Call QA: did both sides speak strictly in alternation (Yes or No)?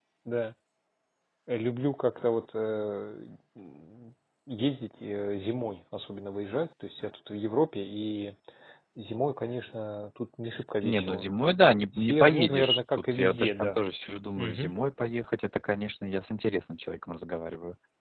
No